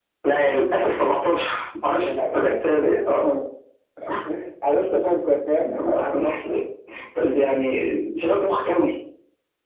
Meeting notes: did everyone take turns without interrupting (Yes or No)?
No